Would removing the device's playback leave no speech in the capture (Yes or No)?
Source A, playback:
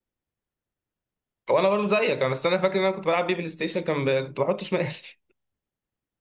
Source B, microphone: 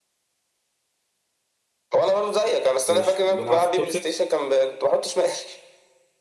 No